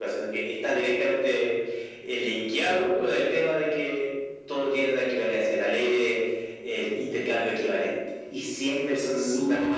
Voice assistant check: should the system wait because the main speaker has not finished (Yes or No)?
No